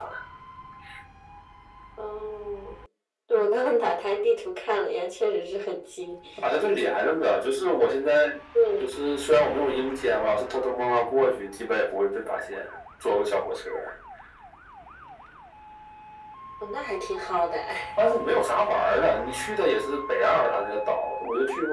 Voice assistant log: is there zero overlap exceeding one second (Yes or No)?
Yes